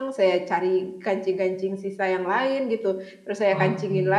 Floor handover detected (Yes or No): No